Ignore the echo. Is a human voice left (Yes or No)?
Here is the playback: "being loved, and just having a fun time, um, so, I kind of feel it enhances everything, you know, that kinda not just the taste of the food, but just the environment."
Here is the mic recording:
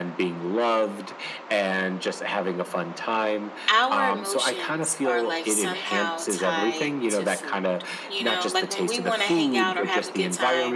Yes